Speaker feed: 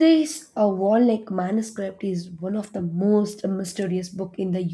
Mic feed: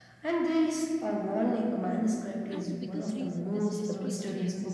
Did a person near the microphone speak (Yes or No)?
Yes